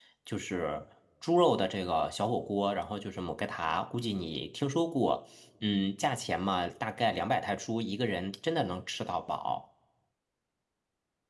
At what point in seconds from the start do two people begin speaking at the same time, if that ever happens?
none

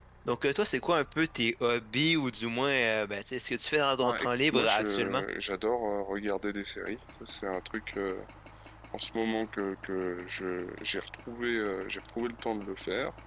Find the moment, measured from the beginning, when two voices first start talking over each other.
4.0 s

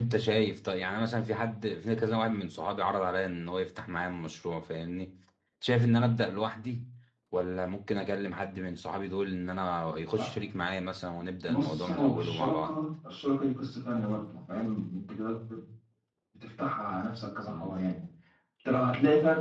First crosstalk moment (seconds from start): 11.4 s

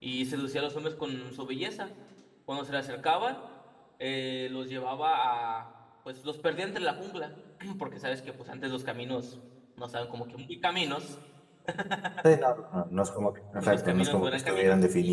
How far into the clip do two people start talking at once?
13.6 s

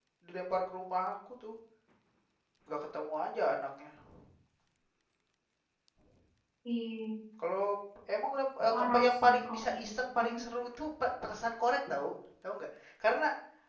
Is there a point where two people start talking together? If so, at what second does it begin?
8.7 s

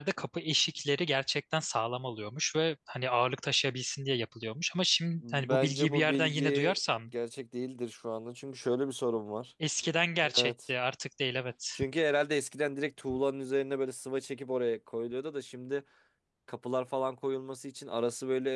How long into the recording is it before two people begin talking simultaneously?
5.3 s

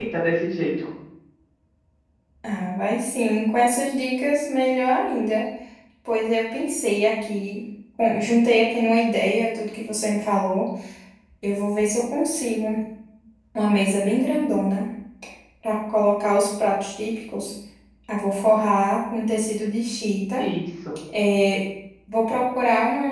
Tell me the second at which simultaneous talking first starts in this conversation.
none

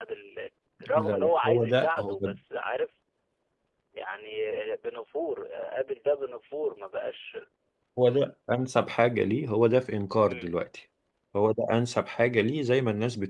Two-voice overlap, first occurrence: 0.9 s

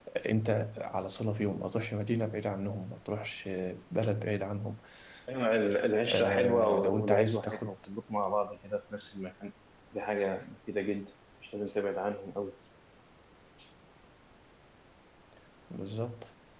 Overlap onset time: 6.0 s

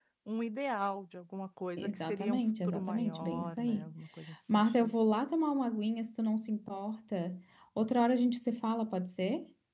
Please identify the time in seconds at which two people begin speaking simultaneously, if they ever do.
1.8 s

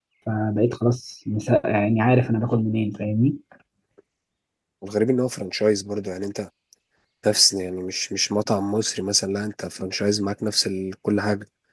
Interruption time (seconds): none

